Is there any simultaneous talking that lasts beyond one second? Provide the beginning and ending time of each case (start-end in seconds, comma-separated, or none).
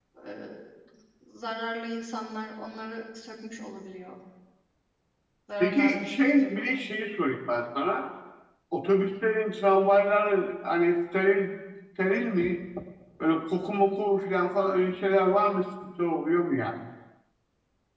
5.6-6.9